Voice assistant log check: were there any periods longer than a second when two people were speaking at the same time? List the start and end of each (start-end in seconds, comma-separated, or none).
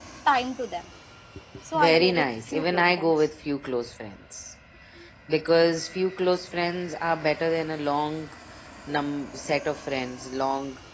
1.7-3.1